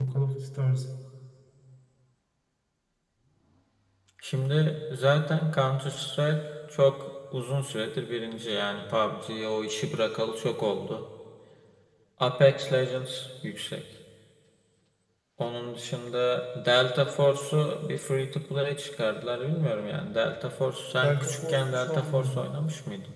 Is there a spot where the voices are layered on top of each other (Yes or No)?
Yes